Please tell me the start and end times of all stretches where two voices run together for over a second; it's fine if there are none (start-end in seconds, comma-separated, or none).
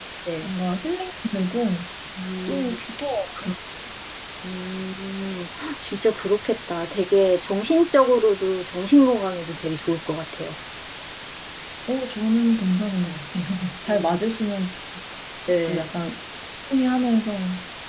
none